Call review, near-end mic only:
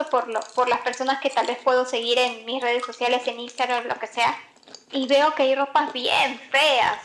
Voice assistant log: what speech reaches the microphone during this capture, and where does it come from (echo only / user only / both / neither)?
echo only